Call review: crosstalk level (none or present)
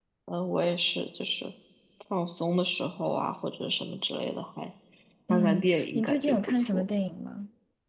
present